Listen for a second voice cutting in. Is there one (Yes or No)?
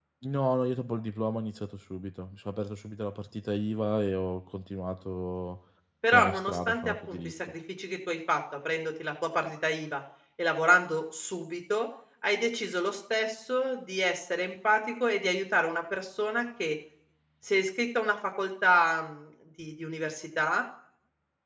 Yes